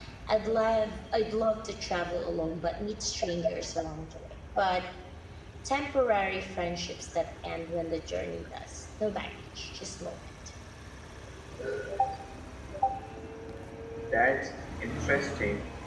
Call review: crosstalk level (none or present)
none